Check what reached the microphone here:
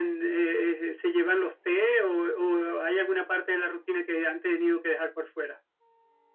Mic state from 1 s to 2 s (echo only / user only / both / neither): echo only